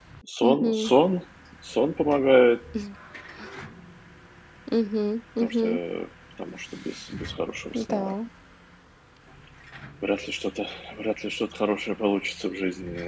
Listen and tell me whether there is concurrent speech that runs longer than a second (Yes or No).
No